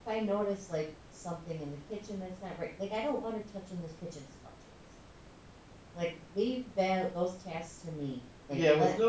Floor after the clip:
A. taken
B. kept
A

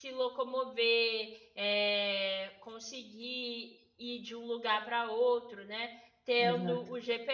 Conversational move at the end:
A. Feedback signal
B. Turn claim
A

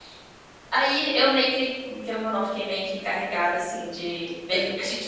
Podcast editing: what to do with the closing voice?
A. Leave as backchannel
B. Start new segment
A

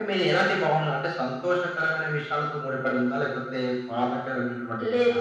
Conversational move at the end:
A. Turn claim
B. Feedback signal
A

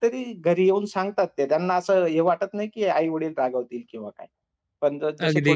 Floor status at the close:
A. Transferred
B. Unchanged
B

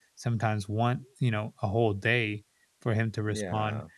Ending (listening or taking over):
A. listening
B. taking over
A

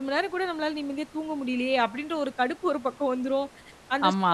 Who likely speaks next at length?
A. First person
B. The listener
A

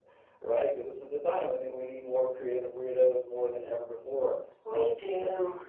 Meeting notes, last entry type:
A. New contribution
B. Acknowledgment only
B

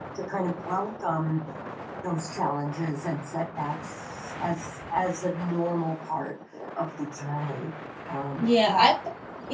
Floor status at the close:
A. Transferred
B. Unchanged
A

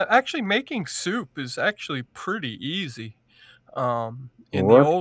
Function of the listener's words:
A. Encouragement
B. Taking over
B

